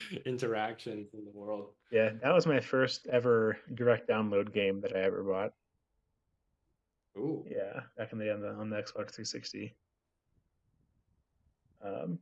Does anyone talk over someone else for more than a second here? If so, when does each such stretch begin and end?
none

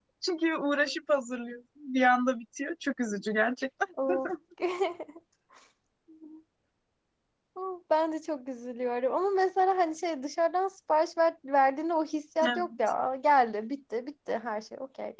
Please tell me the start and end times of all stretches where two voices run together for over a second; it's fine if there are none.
none

